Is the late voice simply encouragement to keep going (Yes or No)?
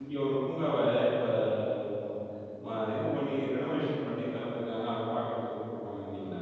No